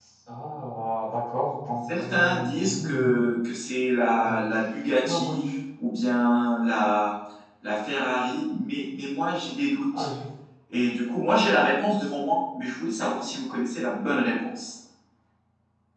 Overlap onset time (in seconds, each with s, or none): 1.9 s